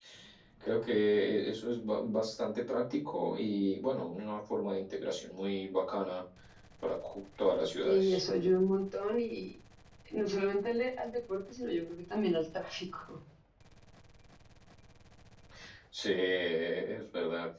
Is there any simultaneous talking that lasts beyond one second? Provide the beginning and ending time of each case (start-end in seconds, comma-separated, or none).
none